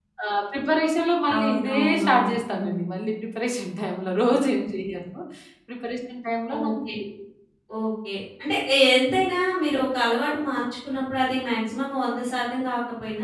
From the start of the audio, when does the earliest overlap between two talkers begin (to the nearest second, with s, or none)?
1 s